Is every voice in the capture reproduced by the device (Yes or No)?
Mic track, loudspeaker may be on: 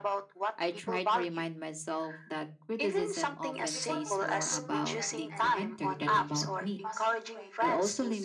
No